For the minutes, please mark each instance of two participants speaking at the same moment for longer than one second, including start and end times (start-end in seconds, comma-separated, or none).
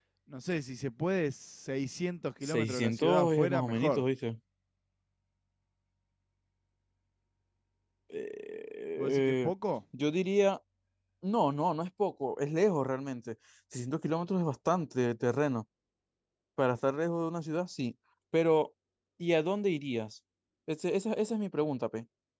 2.4-4.0